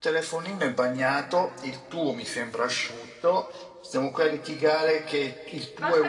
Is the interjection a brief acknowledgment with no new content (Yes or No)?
No